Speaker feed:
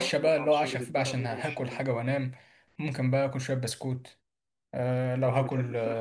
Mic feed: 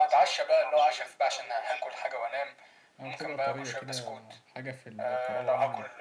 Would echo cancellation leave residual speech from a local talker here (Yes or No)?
Yes